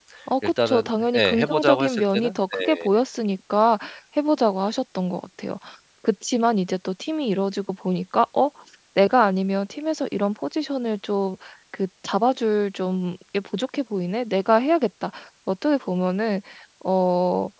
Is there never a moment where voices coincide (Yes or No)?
No